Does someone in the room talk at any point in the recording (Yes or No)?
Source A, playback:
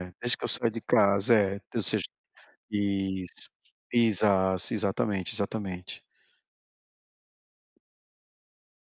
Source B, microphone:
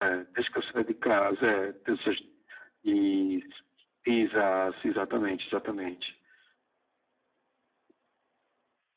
No